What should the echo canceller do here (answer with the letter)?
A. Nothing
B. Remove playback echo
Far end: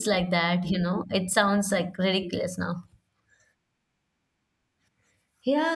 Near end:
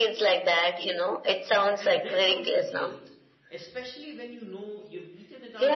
B